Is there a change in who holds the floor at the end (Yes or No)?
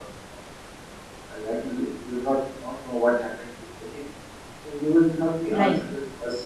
No